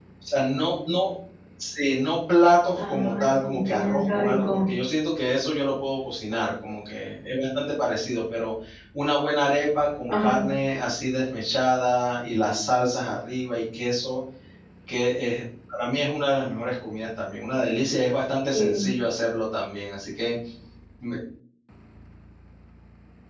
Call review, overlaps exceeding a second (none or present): present